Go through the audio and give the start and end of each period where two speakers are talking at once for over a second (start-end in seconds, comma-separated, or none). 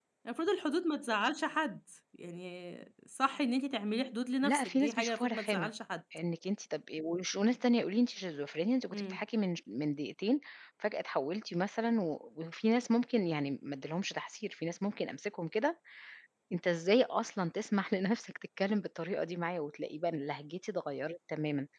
4.4-5.7